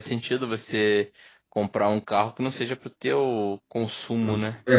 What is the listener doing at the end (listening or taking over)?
taking over